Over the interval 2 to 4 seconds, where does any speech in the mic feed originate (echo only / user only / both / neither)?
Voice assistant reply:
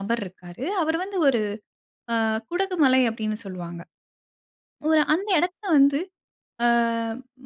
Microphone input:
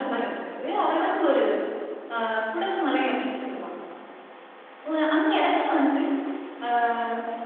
echo only